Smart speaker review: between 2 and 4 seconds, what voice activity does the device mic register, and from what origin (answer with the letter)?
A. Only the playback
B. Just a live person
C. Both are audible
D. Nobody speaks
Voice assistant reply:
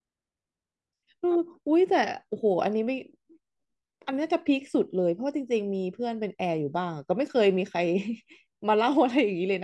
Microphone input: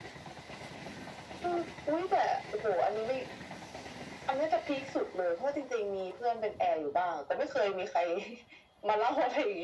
A